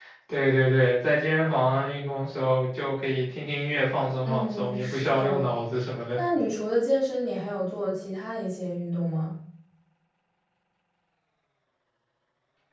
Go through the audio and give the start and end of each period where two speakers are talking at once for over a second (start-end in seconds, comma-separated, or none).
4.2-5.5